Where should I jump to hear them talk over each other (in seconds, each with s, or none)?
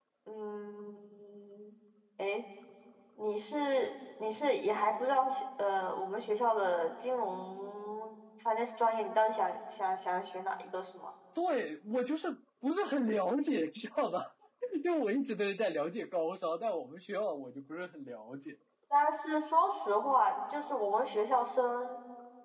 none